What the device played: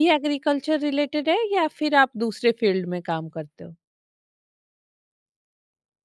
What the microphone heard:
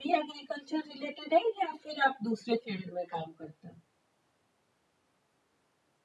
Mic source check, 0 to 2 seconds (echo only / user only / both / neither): echo only